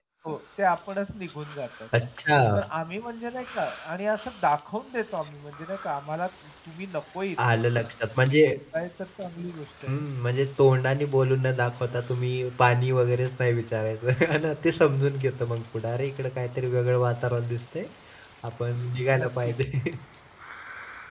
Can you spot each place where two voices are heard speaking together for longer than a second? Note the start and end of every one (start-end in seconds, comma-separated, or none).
none